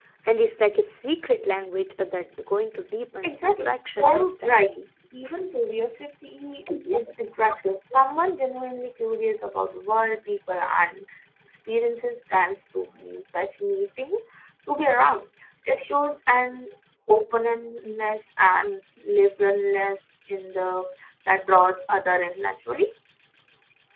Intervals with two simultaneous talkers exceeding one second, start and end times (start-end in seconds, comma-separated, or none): 3.2-4.7